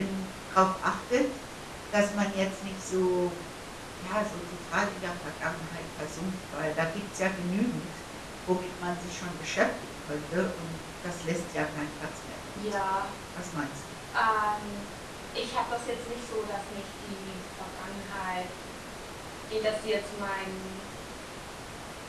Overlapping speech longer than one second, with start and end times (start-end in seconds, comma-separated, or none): none